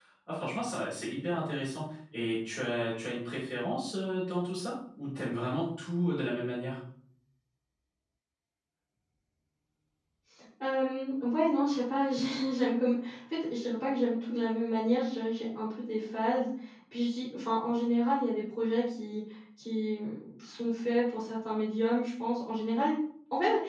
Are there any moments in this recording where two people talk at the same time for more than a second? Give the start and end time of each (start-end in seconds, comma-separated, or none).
none